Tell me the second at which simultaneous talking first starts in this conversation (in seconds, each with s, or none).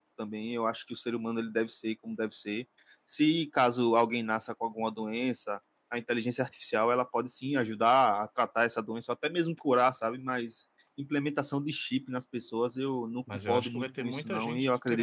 13.3 s